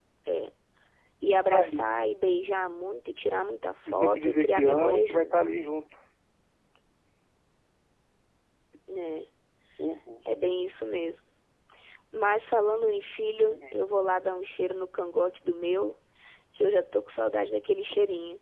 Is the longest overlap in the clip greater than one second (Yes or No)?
Yes